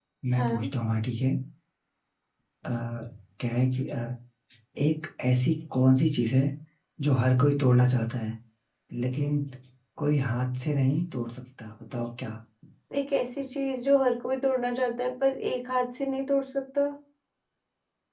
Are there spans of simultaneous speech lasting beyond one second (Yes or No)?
No